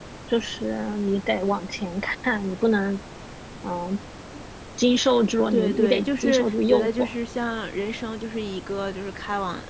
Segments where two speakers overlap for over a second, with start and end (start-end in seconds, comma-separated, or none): 5.5-7.1